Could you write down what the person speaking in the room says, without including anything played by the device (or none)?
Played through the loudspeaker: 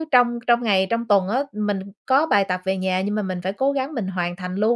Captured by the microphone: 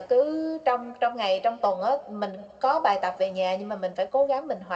none